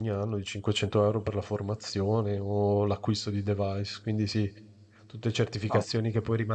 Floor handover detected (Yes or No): No